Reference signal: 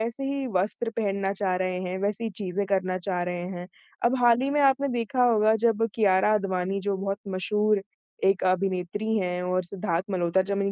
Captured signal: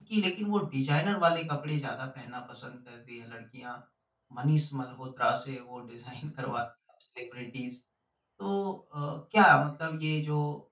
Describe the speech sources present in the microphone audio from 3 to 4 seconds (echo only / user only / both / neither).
user only